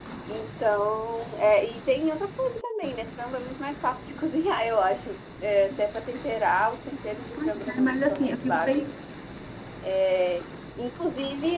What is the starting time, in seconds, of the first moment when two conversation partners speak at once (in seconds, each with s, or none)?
7.3 s